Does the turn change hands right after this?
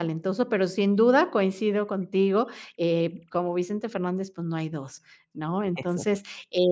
No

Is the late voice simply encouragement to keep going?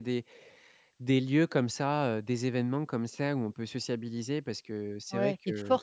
No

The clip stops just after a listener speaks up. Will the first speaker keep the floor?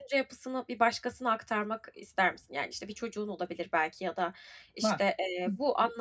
Yes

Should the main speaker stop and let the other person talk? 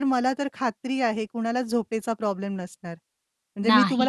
No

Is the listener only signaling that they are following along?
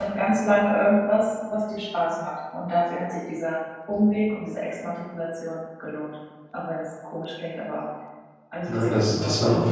No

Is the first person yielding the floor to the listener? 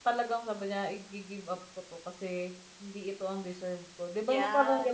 Yes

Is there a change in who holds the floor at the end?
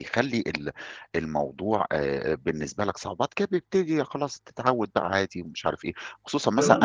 Yes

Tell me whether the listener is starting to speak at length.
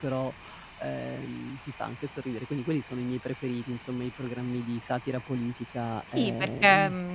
Yes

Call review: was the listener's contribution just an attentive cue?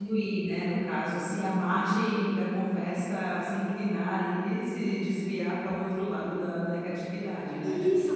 No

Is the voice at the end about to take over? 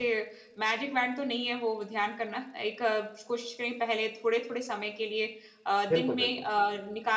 No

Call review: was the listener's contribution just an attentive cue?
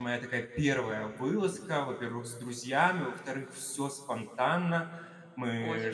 Yes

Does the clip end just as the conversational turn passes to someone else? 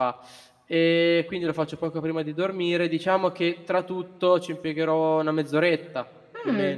Yes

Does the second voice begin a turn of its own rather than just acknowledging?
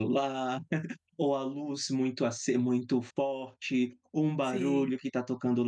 No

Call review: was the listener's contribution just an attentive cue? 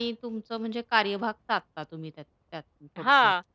No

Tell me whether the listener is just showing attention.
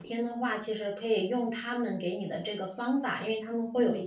Yes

